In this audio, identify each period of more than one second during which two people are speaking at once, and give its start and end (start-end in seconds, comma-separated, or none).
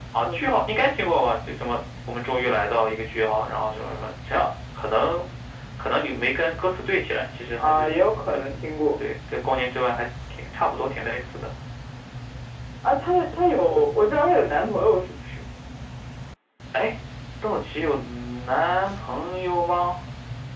none